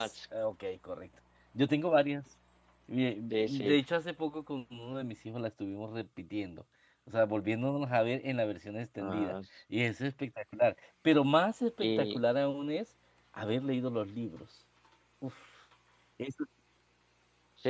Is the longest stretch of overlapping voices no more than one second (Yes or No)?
Yes